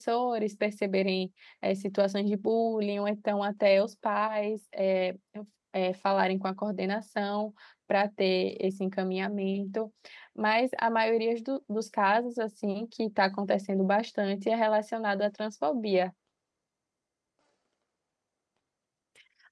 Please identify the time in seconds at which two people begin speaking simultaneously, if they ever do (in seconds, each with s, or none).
none